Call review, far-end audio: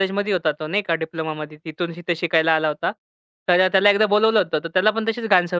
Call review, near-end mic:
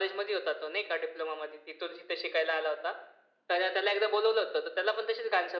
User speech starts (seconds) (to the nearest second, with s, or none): none